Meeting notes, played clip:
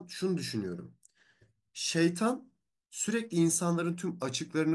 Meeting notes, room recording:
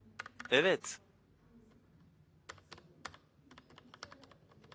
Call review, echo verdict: none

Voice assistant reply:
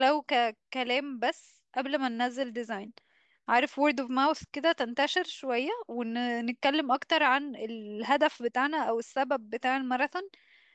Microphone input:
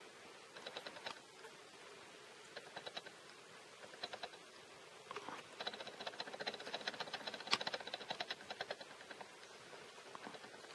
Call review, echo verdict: none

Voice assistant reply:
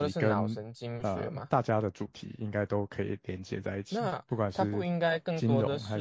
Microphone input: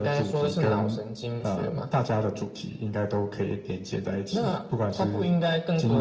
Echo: present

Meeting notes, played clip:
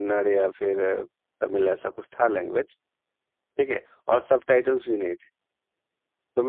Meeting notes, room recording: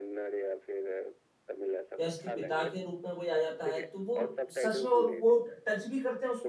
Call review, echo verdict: present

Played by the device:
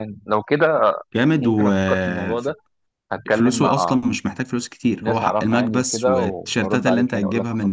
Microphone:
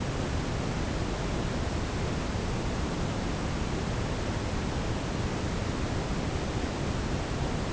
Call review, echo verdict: none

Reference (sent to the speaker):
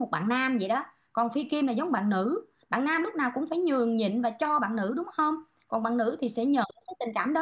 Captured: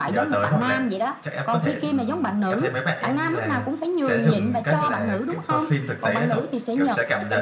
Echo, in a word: present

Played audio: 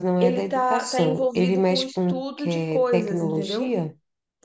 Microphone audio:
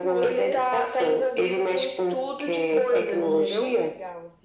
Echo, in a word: present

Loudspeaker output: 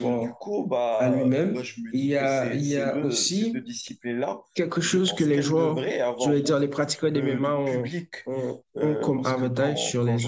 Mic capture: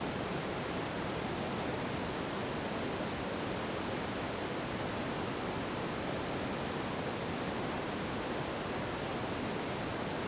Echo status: none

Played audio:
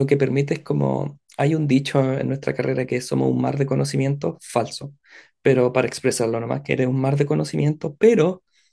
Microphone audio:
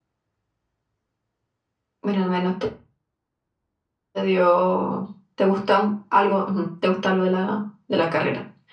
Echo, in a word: none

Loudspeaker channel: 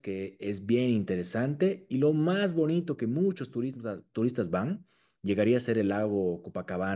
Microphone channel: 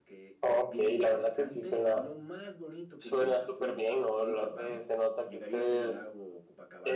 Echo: present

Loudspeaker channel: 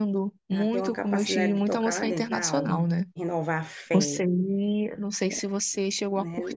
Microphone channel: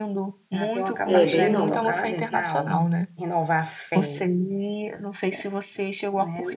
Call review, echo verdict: present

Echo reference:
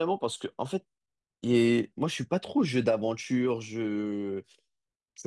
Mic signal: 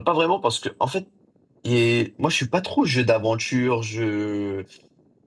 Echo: present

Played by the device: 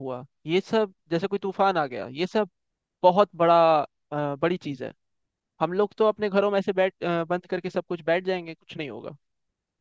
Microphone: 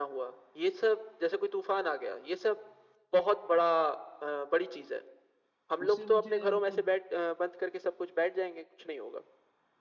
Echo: present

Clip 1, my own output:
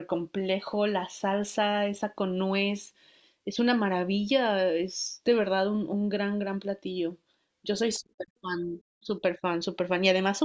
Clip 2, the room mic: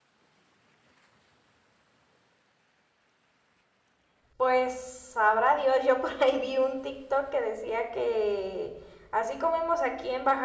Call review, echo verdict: none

